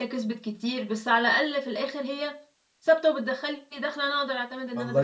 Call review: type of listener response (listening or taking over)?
taking over